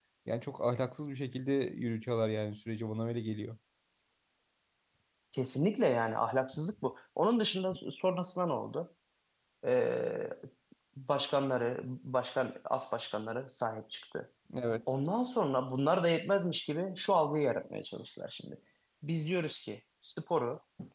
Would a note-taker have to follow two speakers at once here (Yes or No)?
No